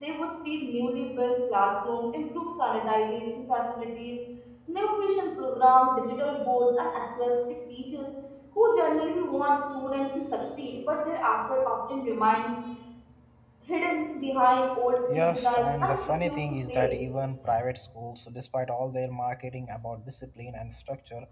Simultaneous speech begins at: 15.1 s

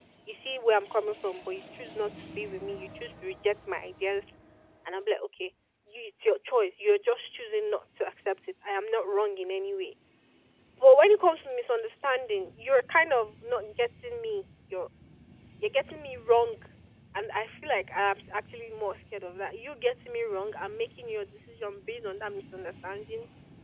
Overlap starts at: none

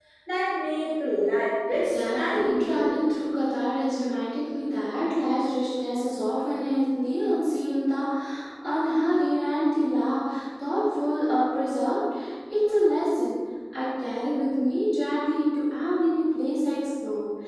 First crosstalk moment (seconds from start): 1.7 s

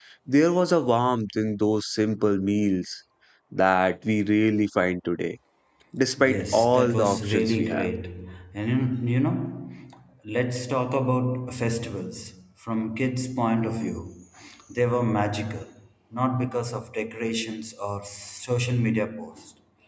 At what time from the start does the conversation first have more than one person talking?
6.2 s

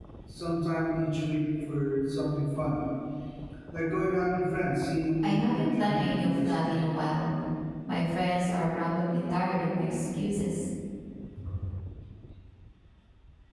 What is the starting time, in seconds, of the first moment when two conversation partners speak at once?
5.2 s

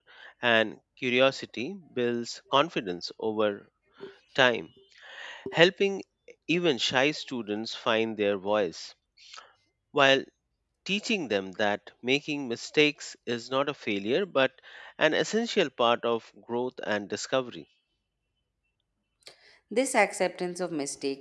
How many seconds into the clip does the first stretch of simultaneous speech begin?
none

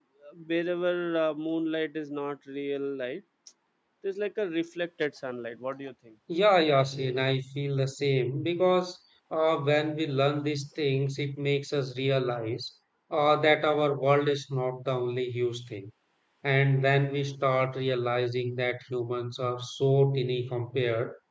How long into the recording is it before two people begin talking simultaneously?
none

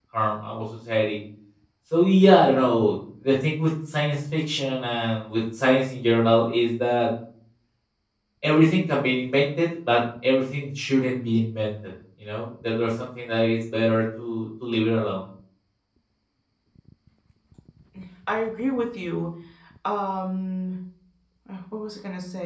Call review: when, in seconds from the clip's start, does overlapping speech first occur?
none

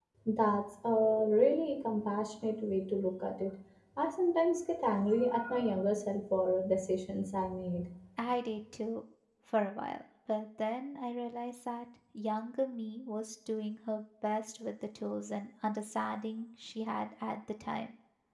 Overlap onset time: none

